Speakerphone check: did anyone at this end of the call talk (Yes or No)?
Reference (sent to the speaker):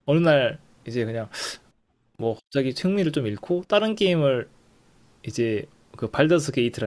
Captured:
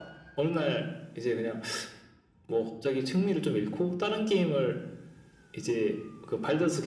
No